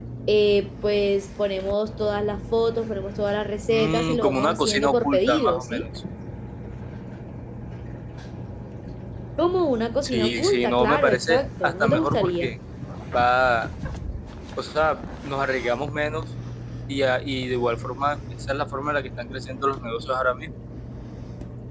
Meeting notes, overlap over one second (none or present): present